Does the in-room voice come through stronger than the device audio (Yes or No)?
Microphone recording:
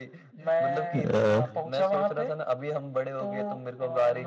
Yes